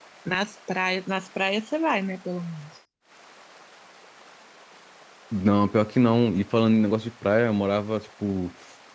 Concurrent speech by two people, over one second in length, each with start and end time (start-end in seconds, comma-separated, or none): none